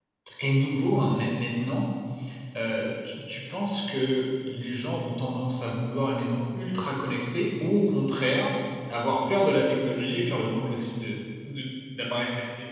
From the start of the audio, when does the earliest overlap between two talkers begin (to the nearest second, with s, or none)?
none